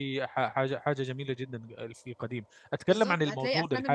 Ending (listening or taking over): taking over